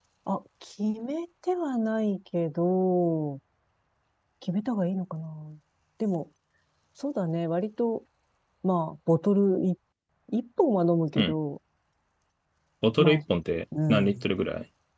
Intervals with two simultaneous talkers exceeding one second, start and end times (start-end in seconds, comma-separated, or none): none